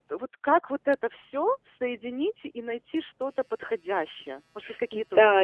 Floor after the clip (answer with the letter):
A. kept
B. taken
B